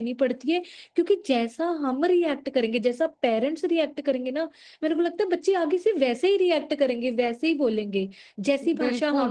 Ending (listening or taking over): taking over